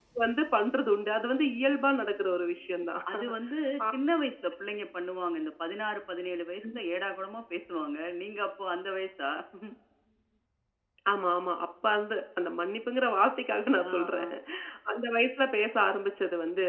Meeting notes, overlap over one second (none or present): none